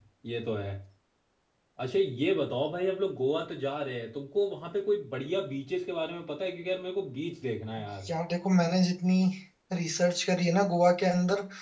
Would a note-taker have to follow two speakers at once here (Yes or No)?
No